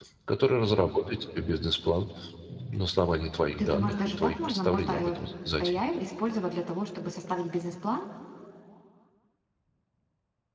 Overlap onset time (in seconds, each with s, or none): 3.6 s